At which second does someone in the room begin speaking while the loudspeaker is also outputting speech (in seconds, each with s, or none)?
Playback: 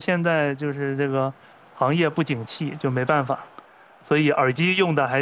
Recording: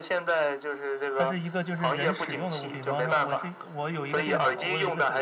1.1 s